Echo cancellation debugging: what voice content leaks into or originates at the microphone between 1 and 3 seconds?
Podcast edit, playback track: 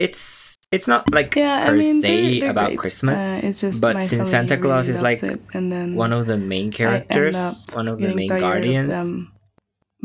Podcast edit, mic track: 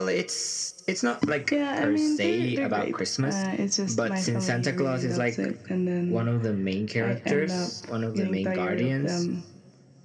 echo only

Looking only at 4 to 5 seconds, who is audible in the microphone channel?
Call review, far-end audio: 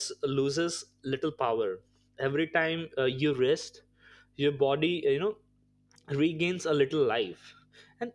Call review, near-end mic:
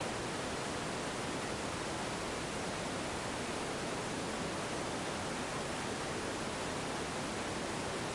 neither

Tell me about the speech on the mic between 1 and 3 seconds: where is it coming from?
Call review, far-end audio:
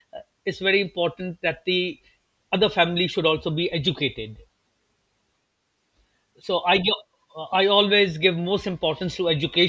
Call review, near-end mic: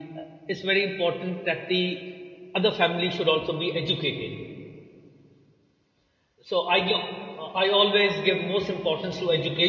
echo only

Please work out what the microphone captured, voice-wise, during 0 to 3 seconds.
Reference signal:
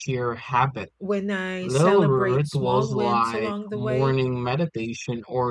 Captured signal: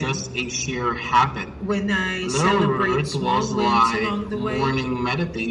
echo only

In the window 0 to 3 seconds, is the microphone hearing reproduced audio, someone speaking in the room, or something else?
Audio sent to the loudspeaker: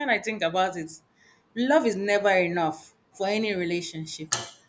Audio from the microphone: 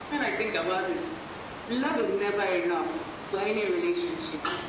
echo only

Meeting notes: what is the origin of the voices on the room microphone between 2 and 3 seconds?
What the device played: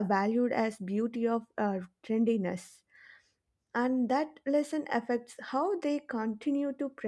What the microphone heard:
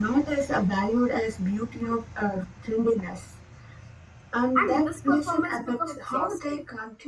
echo only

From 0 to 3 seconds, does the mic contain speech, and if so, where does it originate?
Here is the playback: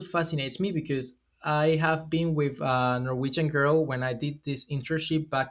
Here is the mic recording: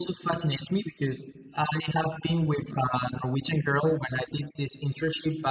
echo only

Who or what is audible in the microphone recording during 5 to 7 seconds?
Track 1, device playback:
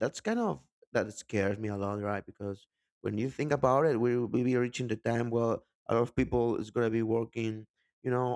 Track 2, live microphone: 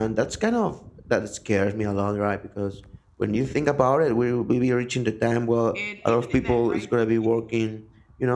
both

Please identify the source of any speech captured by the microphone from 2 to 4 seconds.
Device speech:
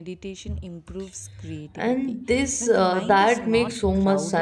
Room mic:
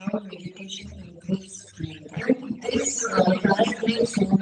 echo only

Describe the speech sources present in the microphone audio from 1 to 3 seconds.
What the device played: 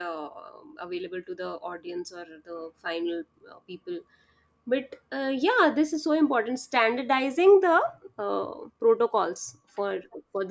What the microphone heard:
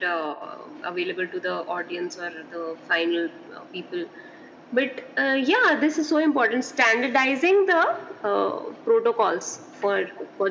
echo only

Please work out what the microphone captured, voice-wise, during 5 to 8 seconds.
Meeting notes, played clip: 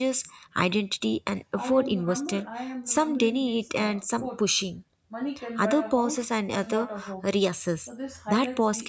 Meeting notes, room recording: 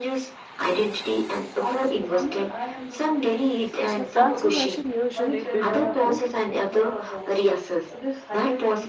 both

